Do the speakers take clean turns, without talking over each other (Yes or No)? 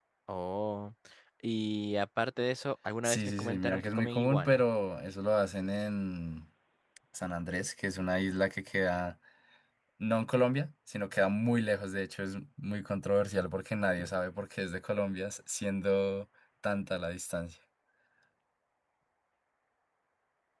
No